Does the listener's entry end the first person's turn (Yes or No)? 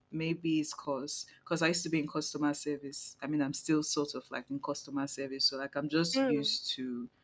No